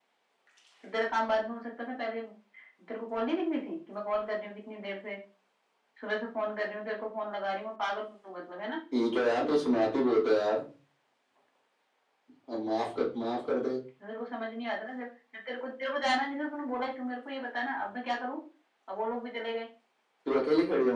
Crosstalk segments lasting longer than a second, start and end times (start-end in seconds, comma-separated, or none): none